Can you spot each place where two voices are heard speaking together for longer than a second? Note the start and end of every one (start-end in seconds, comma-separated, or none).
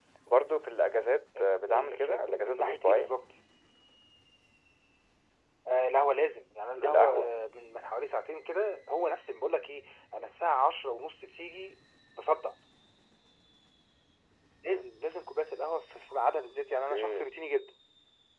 1.4-3.1